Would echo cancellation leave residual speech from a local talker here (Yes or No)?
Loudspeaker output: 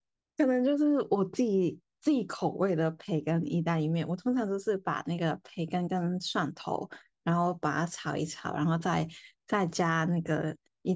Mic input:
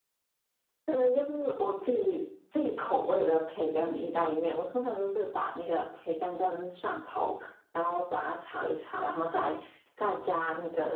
No